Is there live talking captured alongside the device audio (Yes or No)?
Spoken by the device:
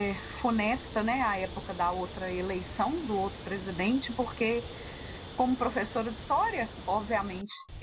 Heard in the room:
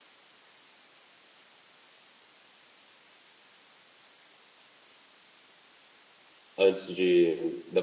Yes